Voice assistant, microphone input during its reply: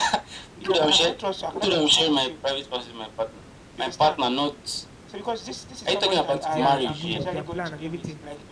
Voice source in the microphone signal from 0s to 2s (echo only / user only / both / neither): echo only